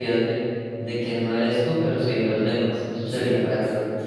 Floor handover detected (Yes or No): Yes